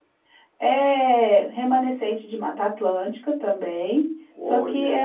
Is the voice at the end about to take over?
No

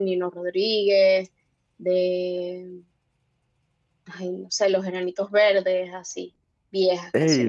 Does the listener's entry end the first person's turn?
Yes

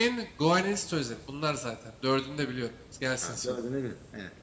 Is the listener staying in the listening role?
No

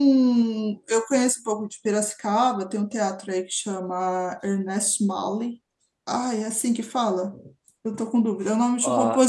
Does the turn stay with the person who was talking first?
No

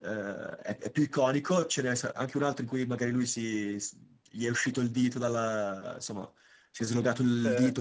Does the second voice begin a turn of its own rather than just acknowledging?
No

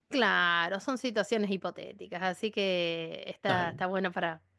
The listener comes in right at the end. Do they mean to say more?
No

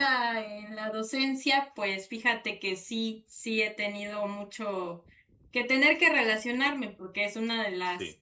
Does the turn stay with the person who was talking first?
Yes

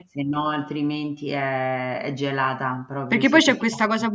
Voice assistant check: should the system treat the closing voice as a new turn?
Yes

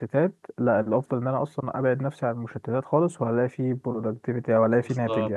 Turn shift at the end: Yes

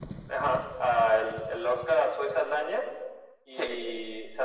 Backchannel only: Yes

